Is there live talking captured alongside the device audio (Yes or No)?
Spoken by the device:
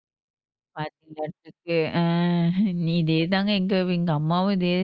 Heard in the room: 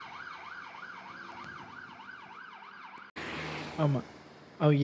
Yes